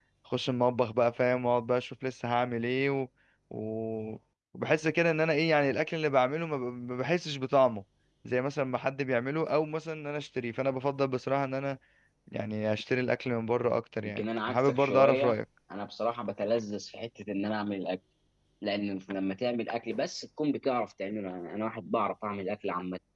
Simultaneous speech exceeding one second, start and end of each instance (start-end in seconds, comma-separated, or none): 14.0-15.4